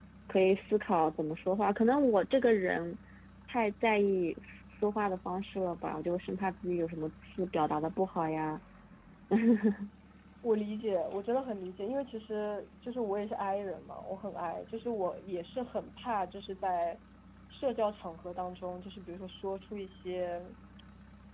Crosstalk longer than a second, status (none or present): none